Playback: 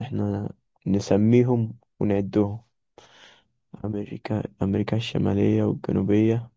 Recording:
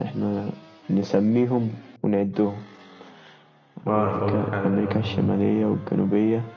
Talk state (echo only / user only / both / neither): both